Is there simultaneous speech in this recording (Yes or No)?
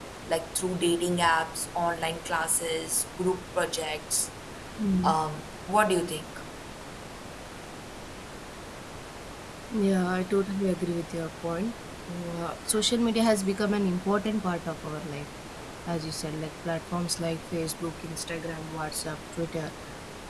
No